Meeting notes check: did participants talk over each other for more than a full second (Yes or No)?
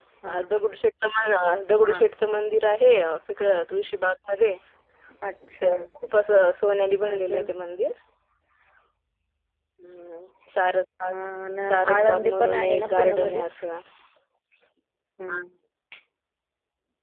Yes